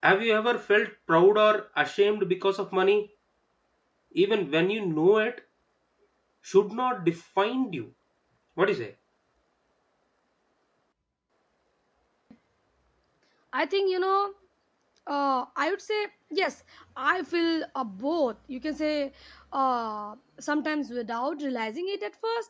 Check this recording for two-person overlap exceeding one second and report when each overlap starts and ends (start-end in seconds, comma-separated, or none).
none